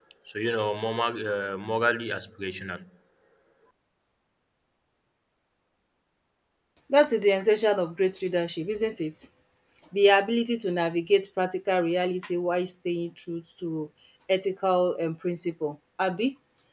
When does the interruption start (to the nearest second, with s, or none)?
none